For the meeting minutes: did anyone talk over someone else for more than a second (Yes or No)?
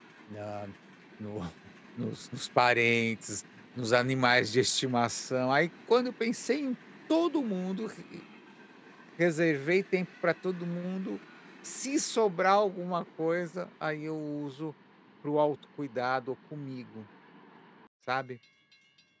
No